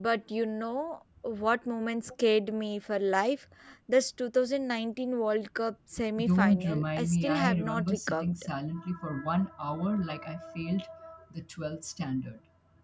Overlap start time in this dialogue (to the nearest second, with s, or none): 6 s